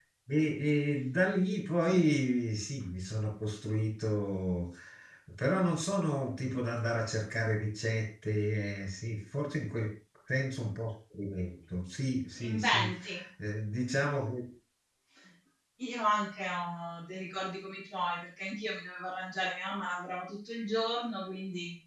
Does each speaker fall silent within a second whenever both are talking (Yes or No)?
Yes